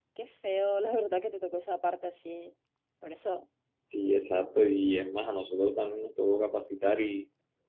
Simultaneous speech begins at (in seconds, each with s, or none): none